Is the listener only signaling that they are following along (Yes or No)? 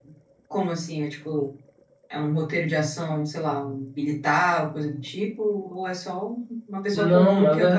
No